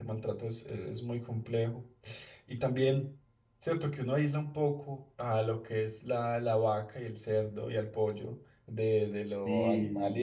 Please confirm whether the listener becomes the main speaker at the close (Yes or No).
No